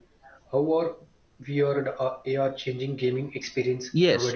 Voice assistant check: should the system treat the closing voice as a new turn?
Yes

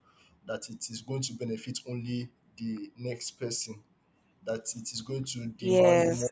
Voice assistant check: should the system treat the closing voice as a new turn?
Yes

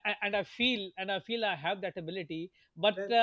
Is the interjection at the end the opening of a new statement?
No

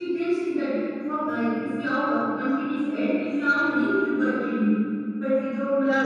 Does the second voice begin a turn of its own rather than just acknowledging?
Yes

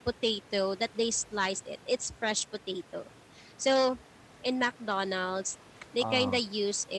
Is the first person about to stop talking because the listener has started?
No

